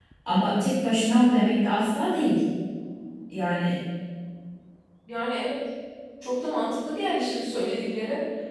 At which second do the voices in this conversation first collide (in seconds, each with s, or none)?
none